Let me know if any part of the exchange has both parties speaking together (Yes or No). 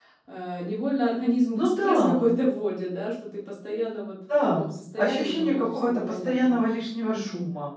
Yes